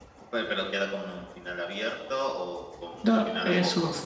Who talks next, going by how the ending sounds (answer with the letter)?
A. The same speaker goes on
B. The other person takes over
B